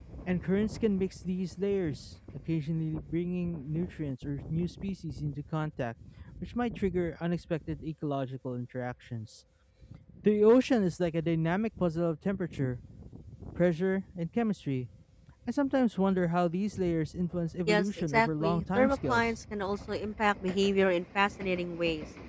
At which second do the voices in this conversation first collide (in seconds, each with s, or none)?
17.7 s